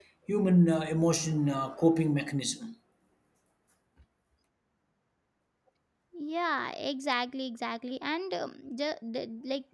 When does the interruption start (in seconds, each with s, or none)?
none